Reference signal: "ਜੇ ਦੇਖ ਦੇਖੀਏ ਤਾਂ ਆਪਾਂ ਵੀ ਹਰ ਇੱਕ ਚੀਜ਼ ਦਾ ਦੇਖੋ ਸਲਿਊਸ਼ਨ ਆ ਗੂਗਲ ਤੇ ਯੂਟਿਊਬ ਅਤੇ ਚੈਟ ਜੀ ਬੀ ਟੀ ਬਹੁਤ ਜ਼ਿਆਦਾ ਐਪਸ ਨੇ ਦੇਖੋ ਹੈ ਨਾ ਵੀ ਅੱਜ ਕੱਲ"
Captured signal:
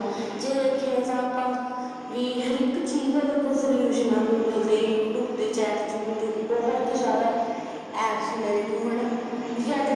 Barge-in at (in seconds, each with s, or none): none